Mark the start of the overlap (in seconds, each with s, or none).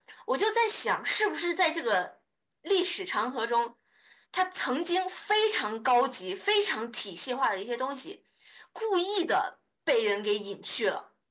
none